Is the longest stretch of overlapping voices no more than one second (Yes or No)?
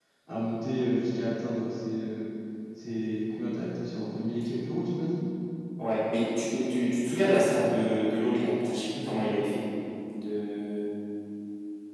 Yes